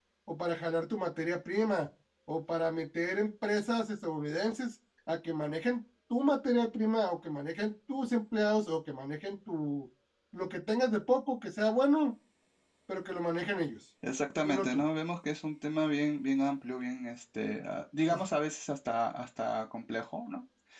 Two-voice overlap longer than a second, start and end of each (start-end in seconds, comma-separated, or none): none